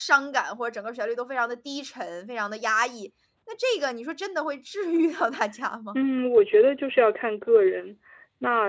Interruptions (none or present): none